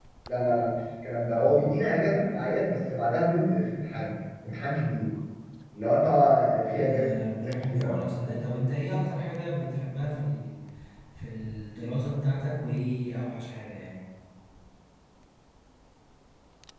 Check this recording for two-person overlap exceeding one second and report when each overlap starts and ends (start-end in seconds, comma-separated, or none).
6.7-8.4